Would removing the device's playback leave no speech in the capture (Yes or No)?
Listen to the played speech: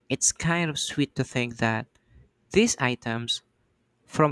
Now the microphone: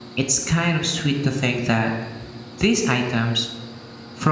Yes